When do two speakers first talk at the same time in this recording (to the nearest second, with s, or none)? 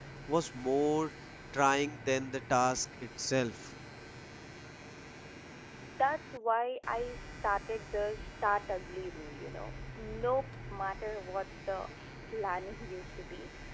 none